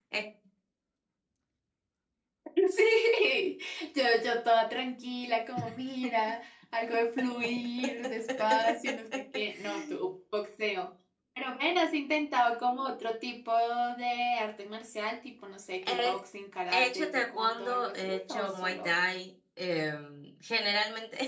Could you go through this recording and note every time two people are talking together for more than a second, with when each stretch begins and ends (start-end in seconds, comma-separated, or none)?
16.7-18.9